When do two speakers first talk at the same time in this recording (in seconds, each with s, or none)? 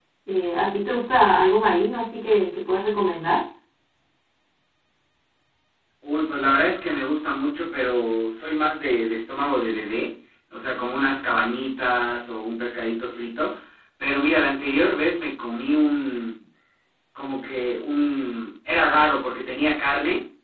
none